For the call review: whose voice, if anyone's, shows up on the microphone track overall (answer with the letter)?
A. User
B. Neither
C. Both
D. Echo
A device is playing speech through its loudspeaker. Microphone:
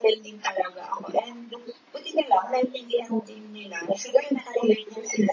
D